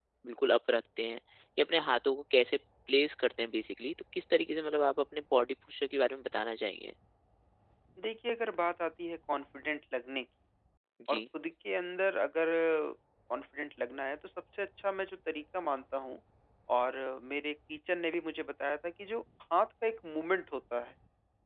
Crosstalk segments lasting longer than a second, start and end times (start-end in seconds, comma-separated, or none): none